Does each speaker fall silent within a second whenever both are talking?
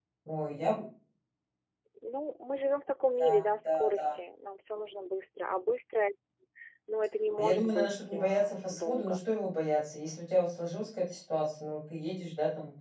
No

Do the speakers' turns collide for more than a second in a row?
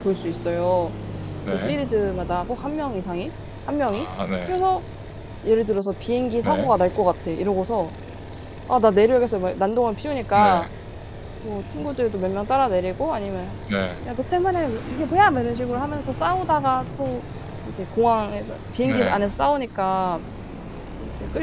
No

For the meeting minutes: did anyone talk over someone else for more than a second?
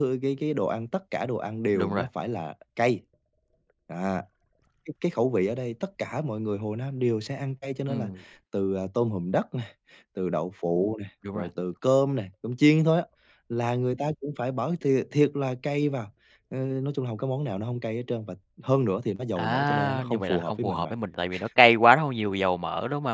Yes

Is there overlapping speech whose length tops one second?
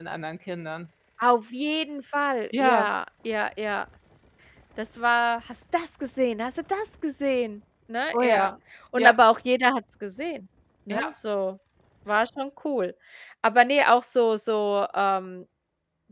No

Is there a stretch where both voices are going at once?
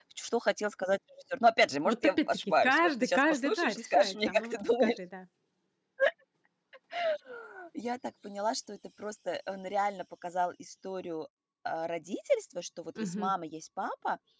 Yes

